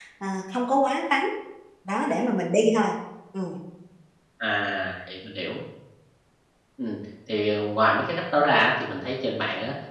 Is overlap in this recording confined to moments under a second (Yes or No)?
Yes